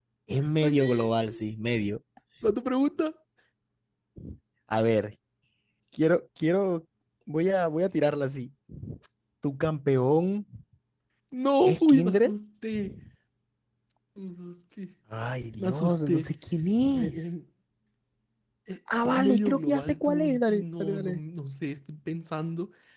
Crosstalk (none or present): present